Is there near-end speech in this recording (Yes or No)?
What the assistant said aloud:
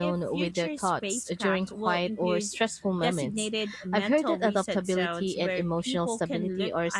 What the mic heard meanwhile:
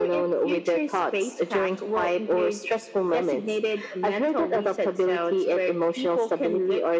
No